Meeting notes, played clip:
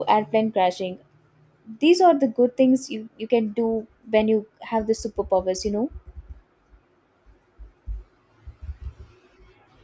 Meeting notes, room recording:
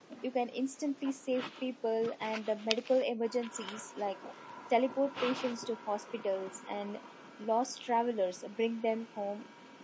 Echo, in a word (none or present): none